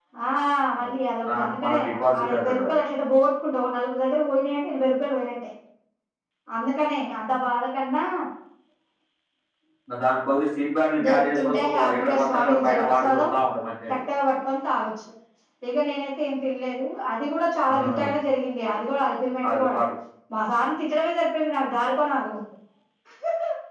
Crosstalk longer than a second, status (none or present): present